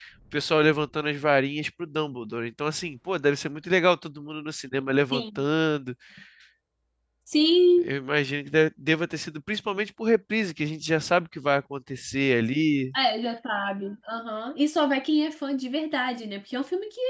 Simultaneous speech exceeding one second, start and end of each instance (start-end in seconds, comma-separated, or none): none